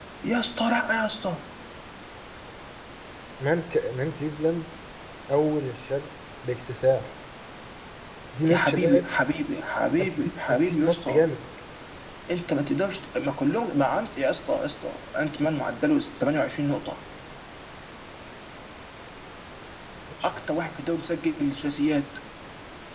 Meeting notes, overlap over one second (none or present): present